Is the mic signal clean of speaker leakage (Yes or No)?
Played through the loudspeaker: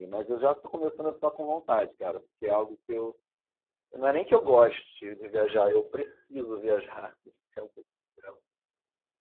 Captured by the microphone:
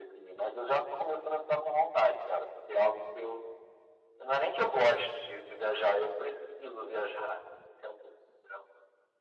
No